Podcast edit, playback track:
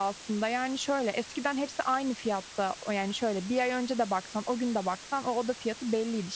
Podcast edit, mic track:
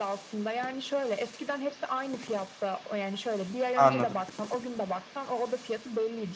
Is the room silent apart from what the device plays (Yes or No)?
No